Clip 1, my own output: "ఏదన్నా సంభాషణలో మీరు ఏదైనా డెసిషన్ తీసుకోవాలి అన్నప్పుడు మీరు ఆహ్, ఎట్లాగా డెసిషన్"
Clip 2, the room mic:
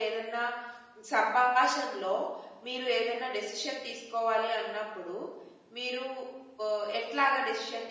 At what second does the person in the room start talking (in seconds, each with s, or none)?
none